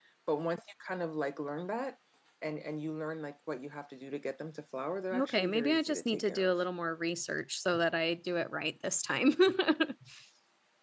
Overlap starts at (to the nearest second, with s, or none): 5 s